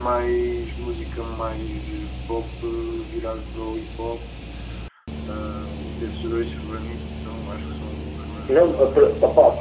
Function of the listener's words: taking over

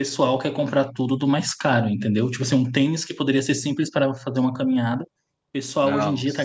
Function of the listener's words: listening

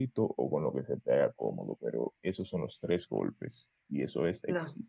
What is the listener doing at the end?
listening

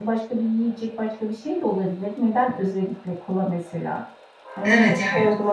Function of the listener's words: taking over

